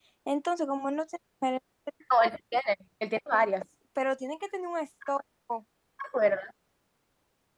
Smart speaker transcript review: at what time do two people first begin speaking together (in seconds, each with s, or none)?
none